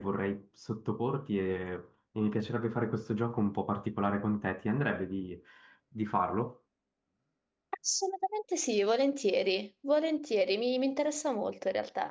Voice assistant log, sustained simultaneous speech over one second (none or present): none